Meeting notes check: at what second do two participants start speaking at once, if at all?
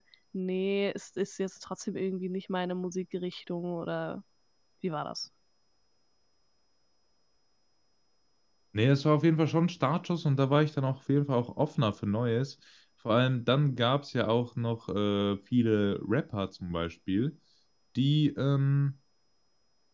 none

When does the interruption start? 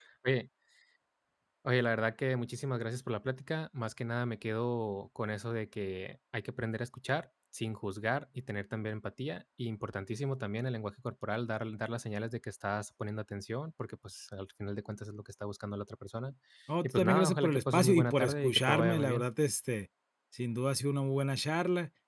16.8 s

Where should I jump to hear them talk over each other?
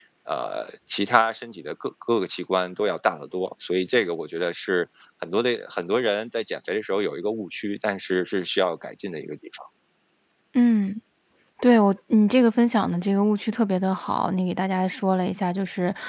none

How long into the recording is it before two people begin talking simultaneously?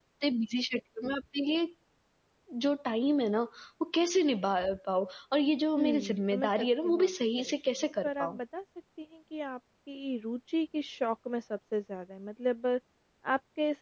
5.8 s

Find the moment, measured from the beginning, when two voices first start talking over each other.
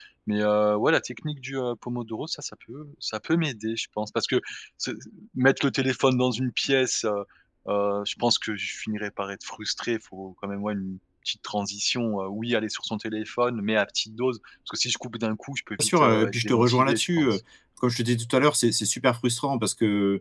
15.8 s

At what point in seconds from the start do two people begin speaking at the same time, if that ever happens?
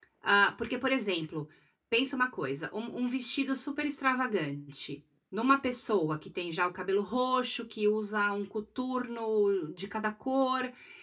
none

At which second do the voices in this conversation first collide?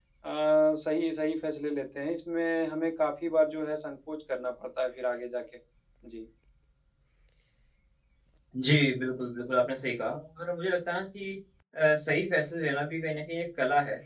none

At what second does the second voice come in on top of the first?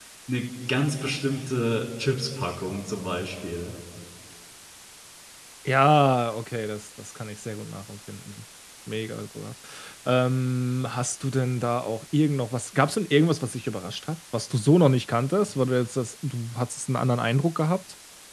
none

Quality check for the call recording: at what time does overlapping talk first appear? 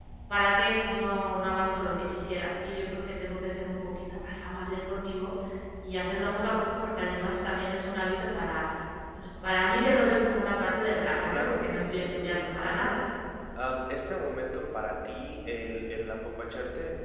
11.3 s

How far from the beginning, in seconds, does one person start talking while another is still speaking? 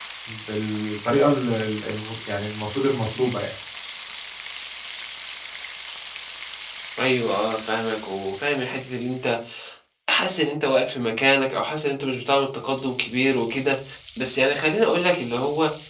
none

